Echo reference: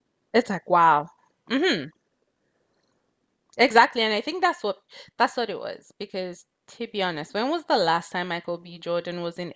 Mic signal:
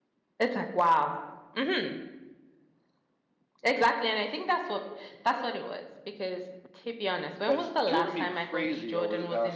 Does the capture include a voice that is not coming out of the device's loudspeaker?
Yes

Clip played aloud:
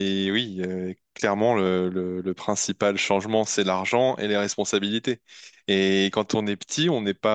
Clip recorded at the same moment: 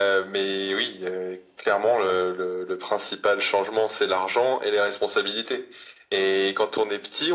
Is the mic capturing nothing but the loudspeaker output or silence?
Yes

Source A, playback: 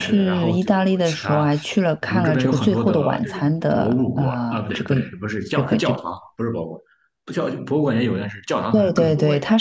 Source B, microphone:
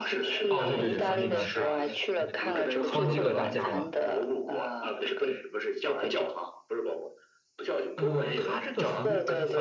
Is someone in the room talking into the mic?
Yes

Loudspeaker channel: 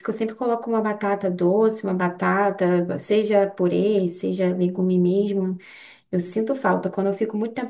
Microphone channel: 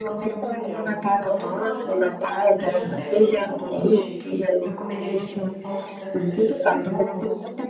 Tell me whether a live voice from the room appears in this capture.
Yes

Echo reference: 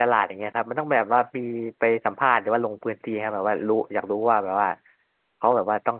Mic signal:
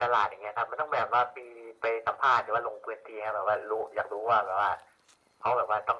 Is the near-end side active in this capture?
No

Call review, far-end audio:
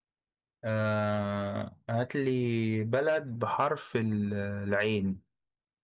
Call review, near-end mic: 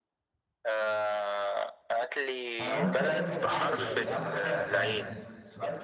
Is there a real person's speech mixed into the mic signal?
Yes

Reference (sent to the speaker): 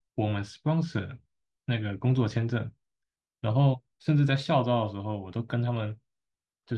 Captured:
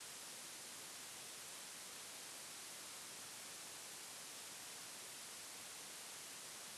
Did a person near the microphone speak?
No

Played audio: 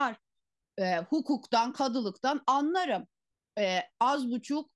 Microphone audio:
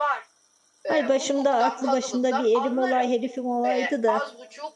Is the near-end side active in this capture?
Yes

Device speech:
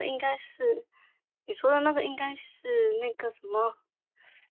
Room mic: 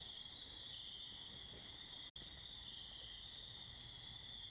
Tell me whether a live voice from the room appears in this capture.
No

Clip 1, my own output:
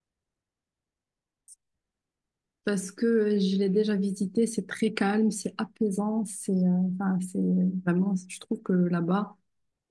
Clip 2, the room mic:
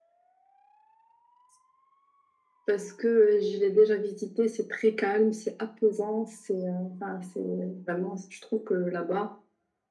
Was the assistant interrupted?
No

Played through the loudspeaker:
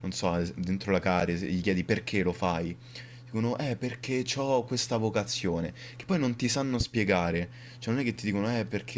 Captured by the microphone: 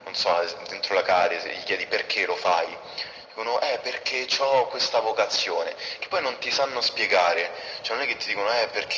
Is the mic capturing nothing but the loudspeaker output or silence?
Yes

